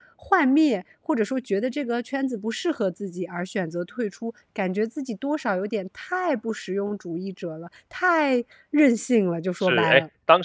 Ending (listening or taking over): taking over